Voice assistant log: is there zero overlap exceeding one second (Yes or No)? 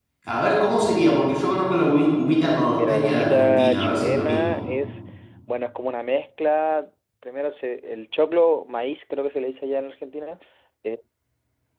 No